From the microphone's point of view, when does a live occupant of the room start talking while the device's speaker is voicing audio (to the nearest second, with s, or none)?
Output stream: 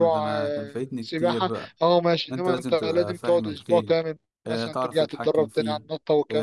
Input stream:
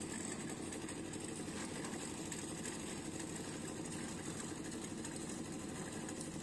none